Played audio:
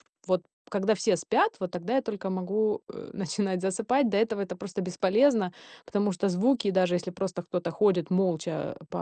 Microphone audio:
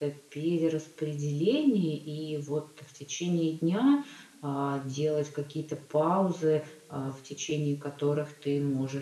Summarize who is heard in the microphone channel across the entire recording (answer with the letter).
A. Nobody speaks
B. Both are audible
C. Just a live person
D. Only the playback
C